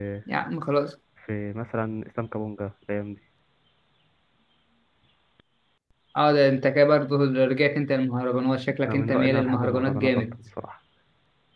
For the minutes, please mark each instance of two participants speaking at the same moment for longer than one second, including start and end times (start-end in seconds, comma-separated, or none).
8.9-10.4